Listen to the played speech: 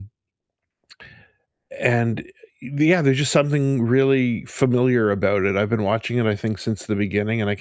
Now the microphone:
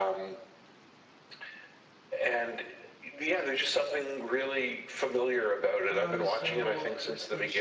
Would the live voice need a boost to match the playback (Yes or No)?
Yes